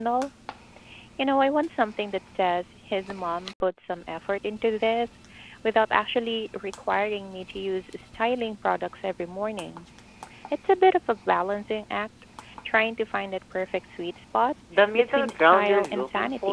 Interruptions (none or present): present